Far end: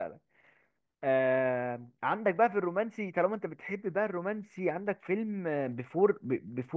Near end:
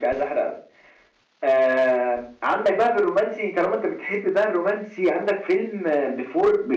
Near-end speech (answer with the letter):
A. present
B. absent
B